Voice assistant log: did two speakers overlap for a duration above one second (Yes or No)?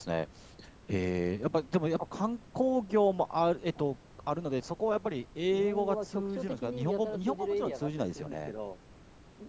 Yes